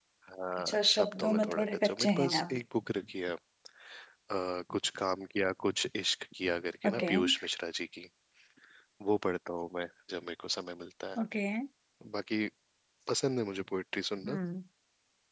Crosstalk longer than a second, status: present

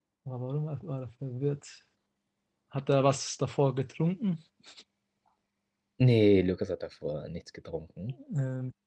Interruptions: none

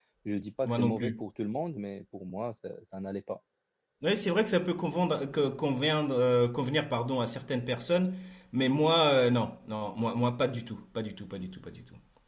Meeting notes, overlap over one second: none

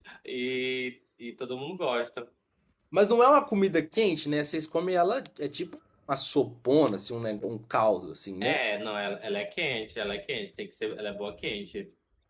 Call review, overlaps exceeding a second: none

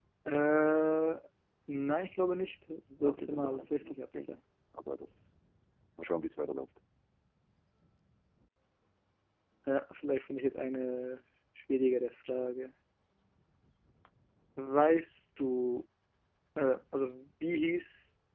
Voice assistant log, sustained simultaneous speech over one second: present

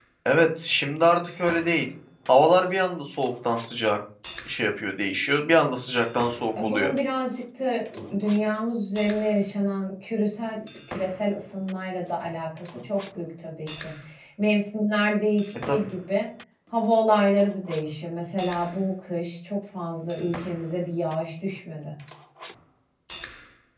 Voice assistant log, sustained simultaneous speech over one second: none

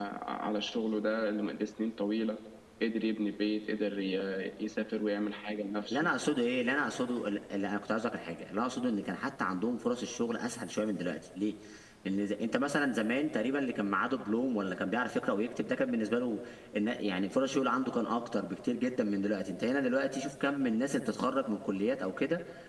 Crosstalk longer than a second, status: none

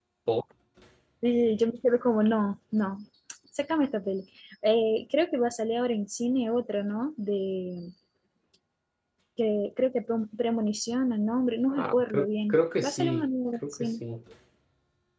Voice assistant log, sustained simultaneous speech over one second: present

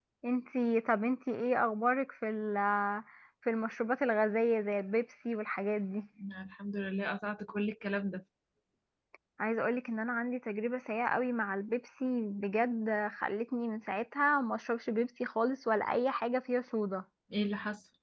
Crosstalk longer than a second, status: none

